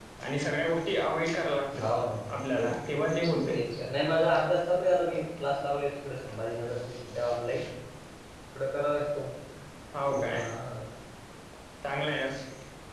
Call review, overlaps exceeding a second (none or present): none